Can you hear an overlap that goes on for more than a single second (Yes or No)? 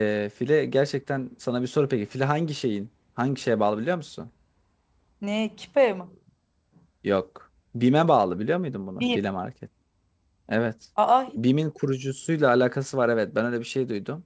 No